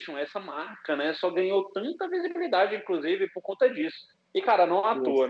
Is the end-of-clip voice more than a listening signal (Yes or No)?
No